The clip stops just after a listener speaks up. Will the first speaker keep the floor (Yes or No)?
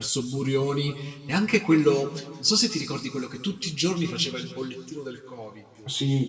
No